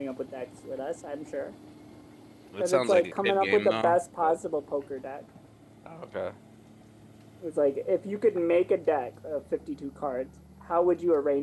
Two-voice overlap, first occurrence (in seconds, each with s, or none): 2.6 s